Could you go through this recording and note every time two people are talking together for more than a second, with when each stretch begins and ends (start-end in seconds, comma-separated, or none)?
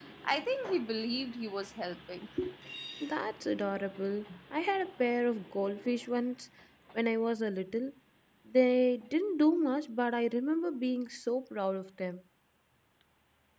none